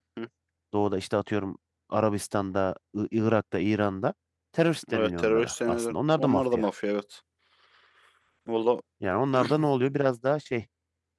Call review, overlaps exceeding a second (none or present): present